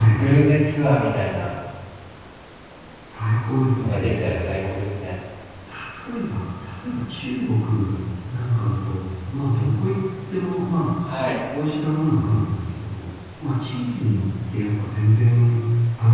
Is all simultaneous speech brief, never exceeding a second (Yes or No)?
Yes